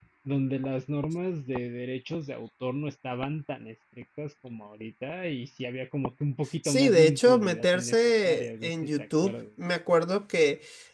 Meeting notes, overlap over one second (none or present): present